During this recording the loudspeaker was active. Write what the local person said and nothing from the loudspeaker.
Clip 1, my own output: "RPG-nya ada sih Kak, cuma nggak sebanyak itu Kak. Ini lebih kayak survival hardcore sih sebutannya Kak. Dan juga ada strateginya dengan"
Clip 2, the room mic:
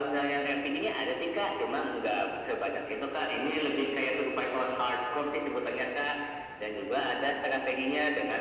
none

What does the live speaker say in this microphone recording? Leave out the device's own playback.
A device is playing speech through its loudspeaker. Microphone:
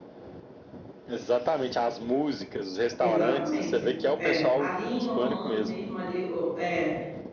Exatamente. É, ali em Orlando mesmo, ali, o- é,

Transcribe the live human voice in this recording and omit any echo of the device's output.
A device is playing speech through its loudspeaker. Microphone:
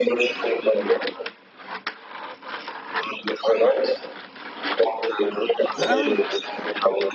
Ah ouais.

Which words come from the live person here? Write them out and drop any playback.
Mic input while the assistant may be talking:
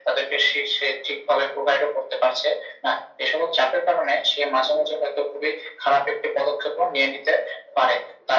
none

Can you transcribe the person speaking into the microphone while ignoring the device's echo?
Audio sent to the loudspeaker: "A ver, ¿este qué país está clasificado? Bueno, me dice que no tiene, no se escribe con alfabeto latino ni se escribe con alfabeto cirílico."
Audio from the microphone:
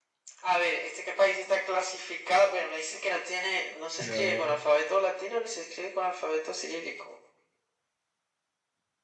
No.

